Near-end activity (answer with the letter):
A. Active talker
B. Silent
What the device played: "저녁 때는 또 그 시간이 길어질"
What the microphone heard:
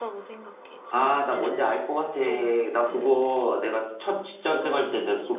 A